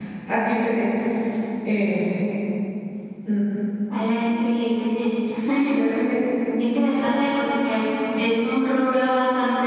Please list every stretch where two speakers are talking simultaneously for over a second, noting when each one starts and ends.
none

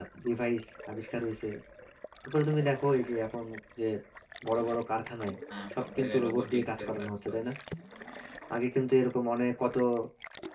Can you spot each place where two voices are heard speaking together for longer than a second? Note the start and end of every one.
5.7-7.4

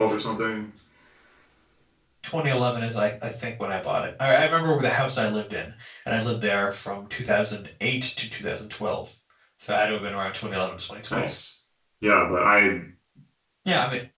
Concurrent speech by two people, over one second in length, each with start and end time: none

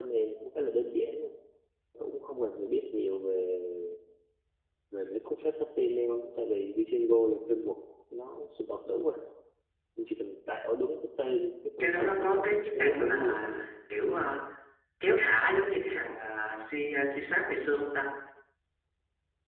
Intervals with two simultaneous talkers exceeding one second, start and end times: 11.8-13.7

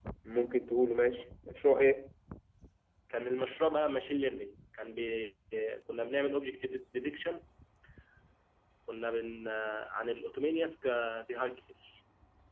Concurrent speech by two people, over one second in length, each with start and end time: none

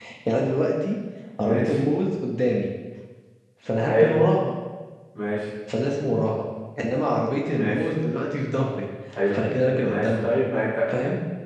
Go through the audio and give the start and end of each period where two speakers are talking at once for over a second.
none

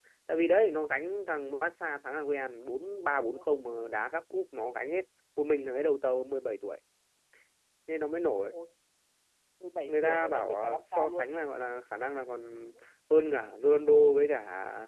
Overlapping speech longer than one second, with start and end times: 9.9-11.3

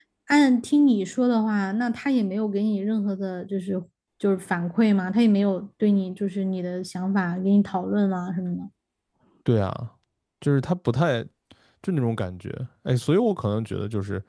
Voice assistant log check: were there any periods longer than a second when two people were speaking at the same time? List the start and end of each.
none

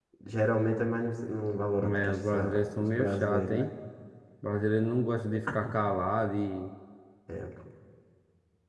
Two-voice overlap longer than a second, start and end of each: 1.8-3.7

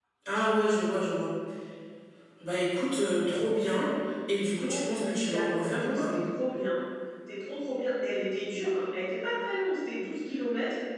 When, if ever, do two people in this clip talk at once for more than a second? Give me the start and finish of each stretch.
4.3-6.1

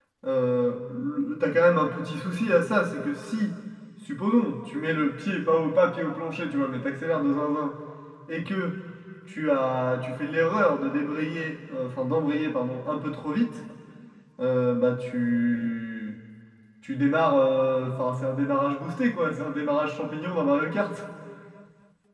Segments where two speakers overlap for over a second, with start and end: none

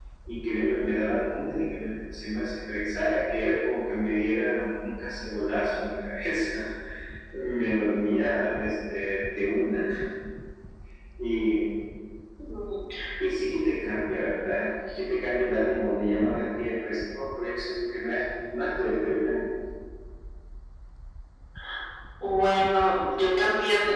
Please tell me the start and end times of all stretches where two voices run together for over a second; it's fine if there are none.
none

